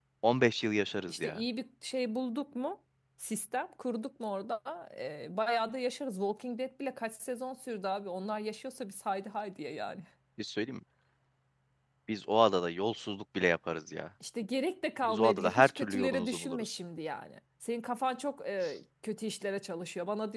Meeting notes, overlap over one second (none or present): present